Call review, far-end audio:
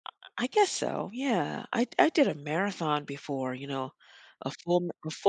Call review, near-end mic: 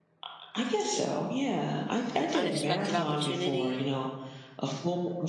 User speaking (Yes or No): Yes